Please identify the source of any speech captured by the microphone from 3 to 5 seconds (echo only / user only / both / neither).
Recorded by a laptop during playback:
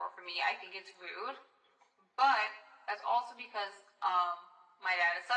echo only